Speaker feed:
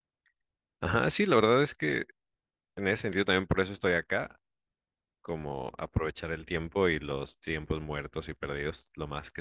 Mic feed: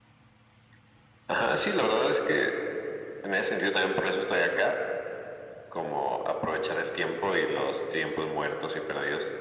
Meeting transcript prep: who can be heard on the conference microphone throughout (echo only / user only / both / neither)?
echo only